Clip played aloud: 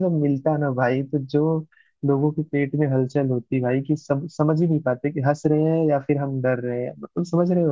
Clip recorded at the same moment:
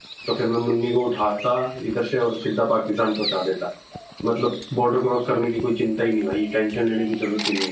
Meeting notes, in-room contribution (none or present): present